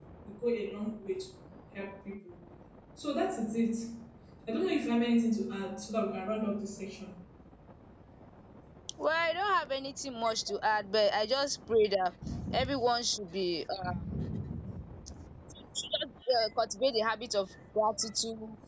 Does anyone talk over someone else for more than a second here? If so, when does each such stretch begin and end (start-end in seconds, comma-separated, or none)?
none